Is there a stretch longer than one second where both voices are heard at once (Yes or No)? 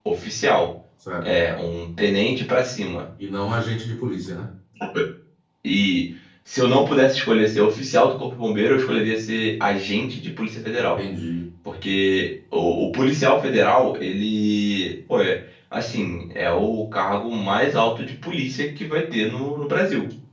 No